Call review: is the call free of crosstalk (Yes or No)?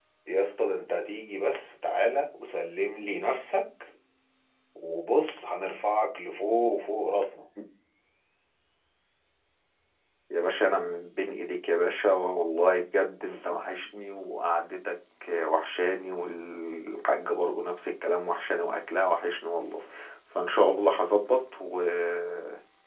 Yes